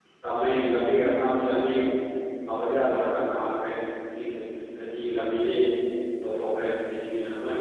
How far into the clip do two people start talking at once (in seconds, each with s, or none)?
none